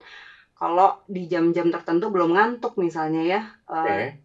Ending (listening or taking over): listening